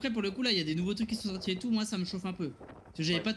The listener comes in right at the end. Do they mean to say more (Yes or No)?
No